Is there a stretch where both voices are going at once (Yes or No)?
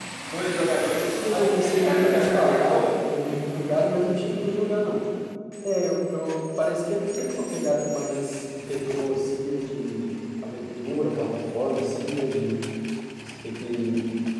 Yes